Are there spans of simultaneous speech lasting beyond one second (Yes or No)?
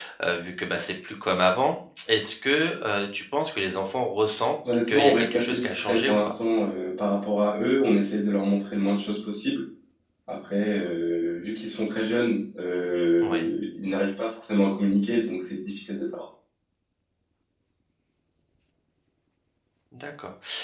Yes